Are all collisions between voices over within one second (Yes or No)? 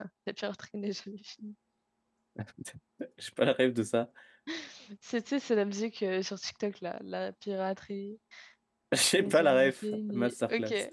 No